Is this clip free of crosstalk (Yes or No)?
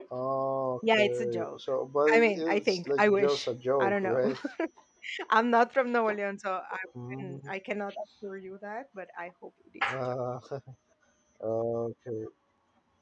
No